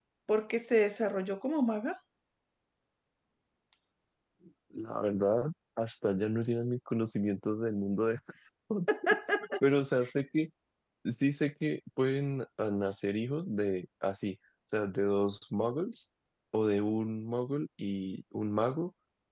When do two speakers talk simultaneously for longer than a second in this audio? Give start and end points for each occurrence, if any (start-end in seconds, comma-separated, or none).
none